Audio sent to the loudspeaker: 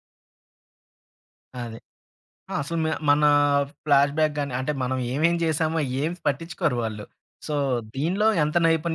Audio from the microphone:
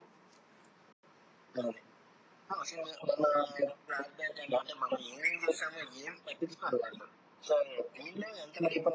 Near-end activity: none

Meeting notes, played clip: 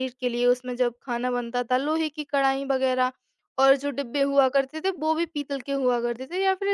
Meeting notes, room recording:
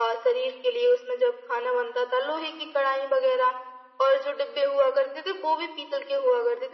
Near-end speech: none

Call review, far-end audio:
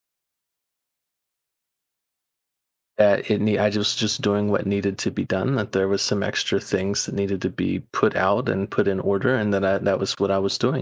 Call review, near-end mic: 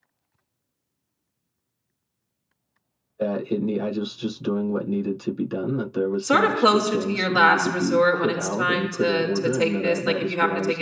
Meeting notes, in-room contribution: present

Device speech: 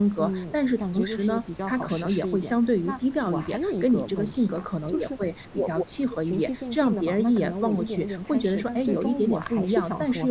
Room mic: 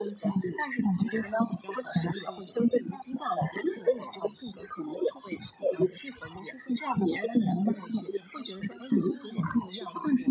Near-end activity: none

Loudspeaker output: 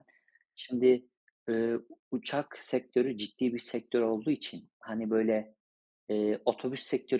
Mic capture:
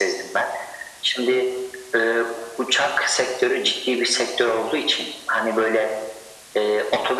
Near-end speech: none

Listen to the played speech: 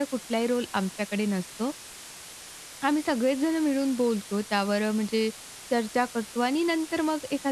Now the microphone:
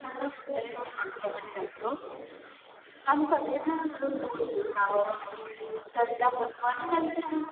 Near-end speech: none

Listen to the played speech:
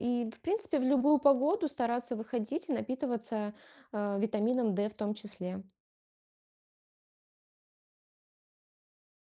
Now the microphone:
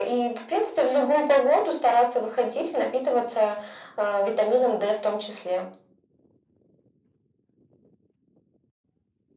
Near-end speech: none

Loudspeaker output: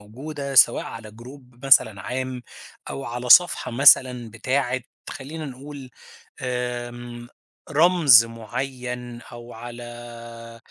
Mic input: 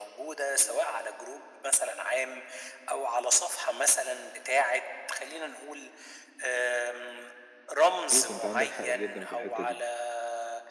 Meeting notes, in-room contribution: present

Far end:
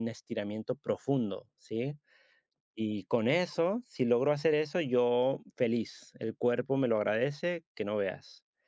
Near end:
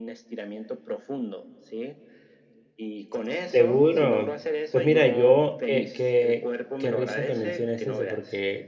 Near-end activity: present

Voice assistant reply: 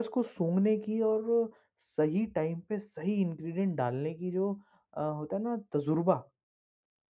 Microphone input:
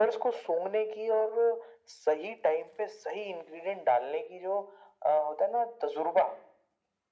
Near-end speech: none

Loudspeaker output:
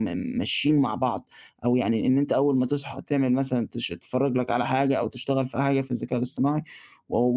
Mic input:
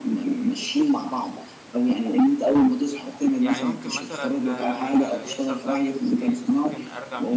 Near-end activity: present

